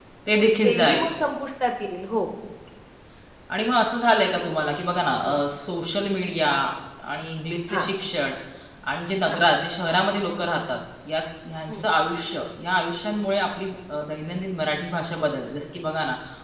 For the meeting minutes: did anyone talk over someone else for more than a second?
No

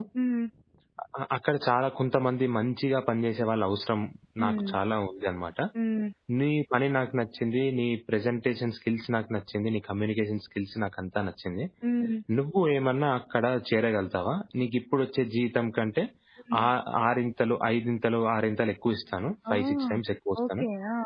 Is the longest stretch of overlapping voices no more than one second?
Yes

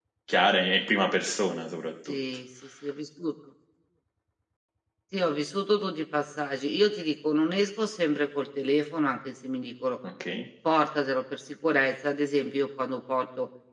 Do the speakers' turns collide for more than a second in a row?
No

